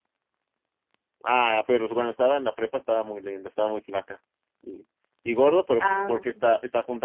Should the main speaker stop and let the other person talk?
No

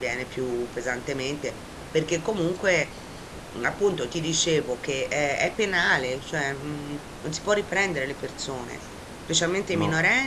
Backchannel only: Yes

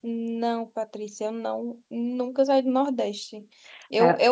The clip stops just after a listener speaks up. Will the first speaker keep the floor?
Yes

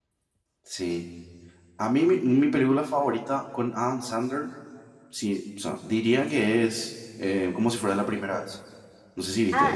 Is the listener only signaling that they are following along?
No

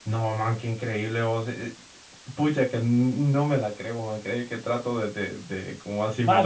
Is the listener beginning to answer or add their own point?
Yes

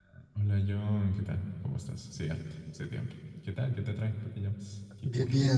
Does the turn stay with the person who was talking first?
No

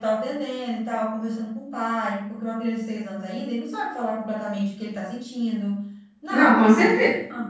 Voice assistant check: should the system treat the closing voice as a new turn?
Yes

